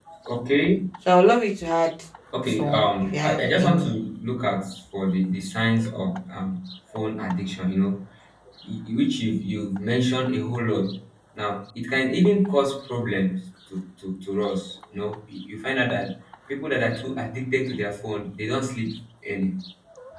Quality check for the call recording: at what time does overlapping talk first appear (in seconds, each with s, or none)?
2.5 s